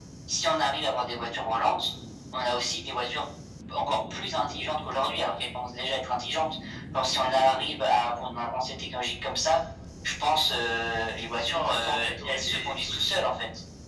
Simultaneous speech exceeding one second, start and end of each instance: 11.3-12.7

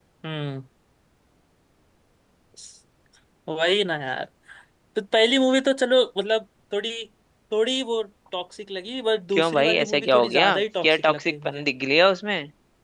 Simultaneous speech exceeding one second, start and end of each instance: 9.3-11.7

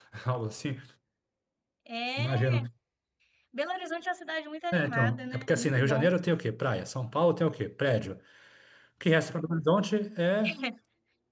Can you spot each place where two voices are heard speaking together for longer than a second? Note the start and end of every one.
4.7-6.1

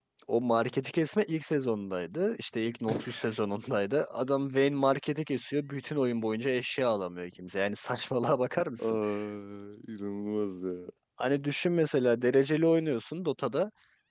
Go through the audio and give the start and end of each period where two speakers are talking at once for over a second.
none

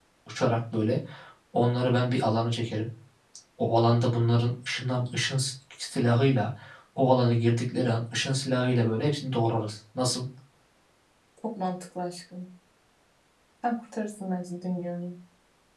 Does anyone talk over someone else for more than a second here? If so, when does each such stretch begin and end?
none

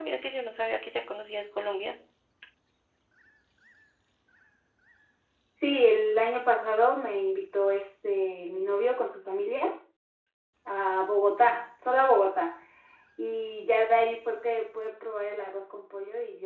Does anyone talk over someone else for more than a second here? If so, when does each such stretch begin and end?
none

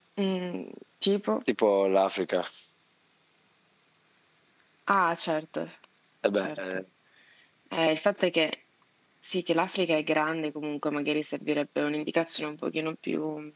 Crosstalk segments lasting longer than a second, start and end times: none

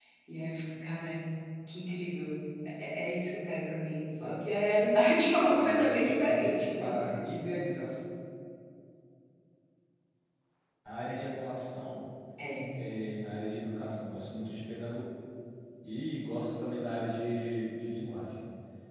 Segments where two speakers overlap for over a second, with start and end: 5.5-6.9

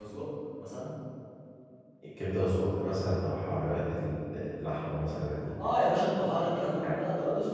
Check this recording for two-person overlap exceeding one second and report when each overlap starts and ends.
none

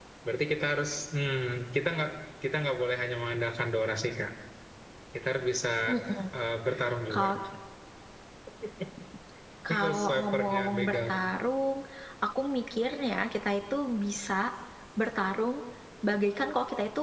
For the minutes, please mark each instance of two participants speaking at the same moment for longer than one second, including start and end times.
9.7-11.1

